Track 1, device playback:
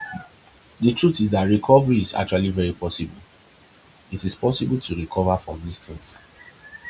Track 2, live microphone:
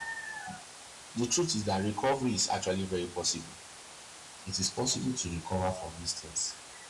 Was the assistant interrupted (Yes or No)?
No